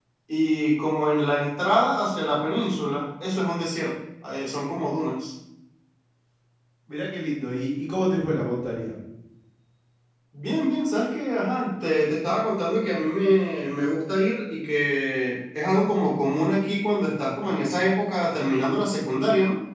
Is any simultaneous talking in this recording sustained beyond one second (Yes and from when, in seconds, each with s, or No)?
No